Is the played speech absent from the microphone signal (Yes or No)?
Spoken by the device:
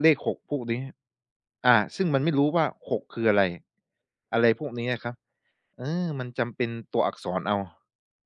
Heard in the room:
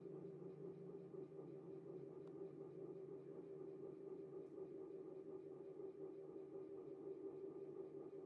Yes